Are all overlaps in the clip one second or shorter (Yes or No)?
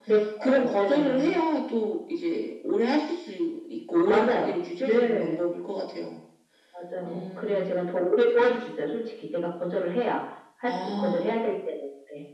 No